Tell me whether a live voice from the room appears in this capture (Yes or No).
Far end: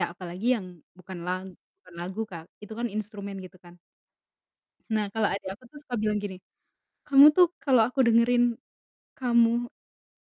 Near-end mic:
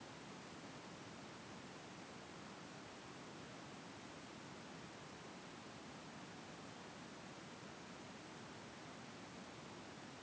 No